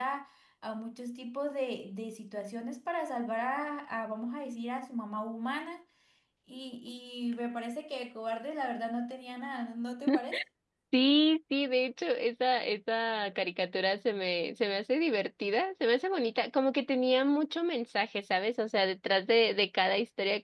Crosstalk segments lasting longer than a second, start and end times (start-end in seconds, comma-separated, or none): none